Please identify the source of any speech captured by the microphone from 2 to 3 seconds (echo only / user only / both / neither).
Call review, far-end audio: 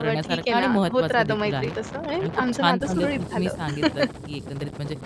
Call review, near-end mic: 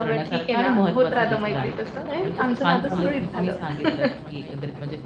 both